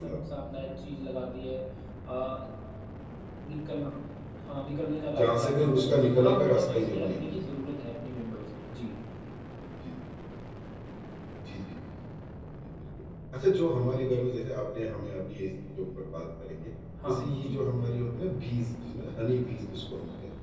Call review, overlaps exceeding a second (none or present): present